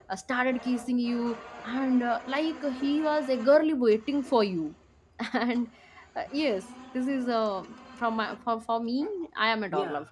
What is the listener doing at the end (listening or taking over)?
taking over